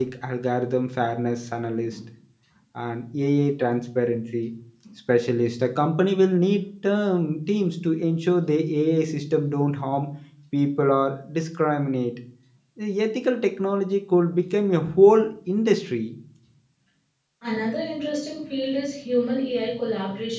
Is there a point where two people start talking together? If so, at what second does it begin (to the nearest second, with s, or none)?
none